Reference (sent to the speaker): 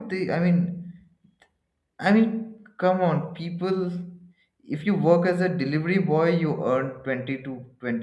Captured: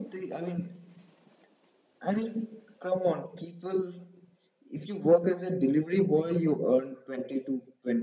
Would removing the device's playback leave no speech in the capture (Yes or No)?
Yes